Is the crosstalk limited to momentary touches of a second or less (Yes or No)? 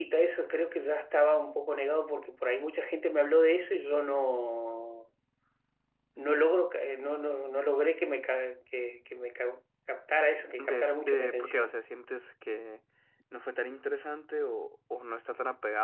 No